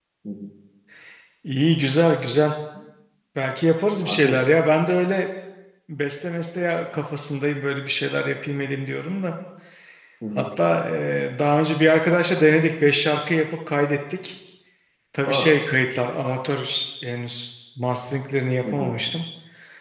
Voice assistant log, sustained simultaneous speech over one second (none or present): none